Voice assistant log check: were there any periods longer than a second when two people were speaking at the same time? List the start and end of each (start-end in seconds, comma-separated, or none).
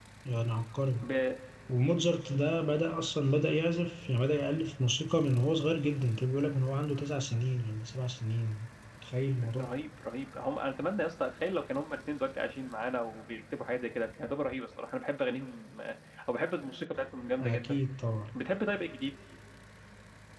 none